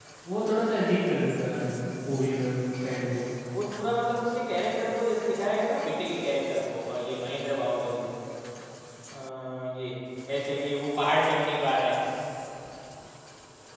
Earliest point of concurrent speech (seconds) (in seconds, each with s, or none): none